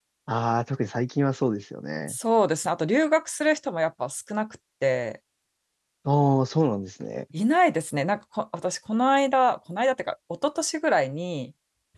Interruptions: none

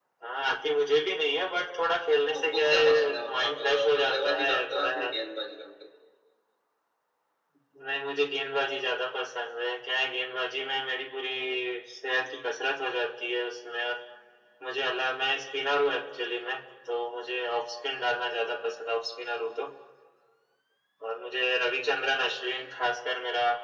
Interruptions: present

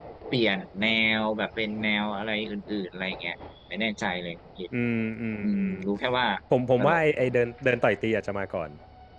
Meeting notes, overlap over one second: none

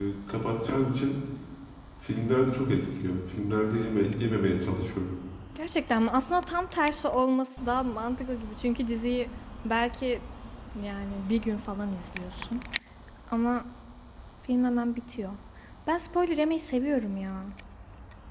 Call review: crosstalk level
none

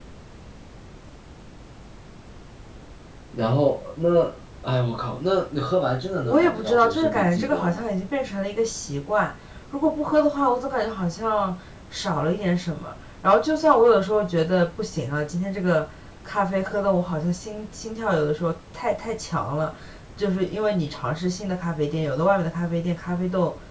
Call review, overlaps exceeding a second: present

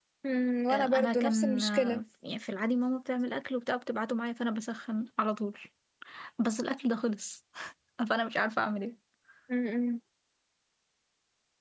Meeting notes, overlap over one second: present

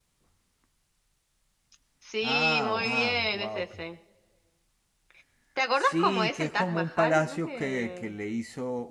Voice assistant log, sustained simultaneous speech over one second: present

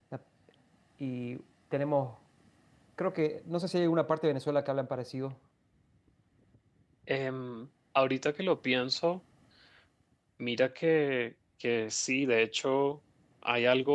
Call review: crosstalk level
none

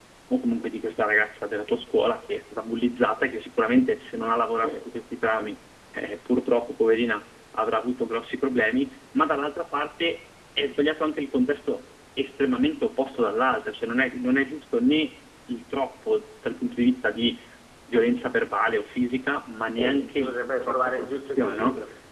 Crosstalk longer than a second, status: present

